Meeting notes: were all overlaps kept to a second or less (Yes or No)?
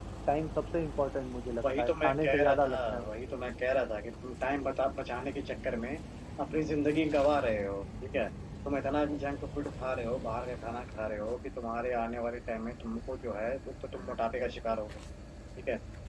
No